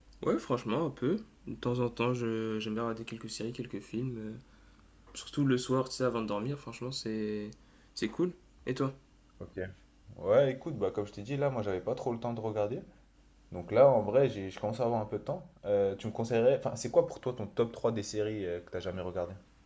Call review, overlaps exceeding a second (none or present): none